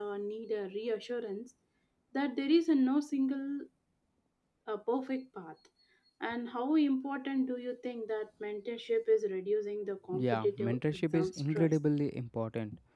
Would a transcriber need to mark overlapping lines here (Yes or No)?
Yes